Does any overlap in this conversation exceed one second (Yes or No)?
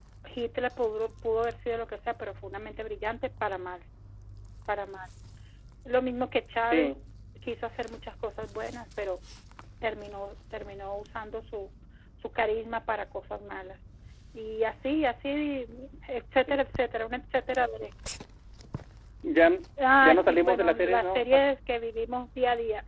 Yes